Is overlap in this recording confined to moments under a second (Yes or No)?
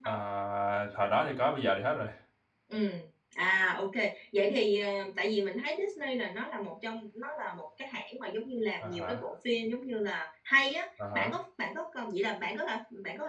Yes